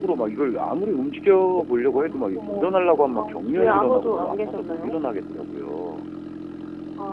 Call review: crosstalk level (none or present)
present